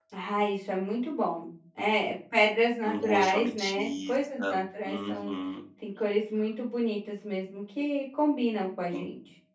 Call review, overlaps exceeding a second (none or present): present